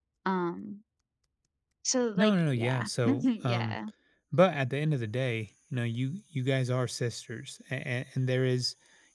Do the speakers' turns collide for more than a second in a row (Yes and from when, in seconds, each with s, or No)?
Yes, from 2.2 s